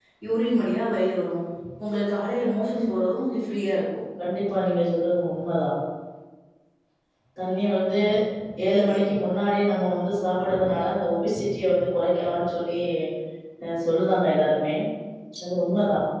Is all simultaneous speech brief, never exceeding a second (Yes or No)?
Yes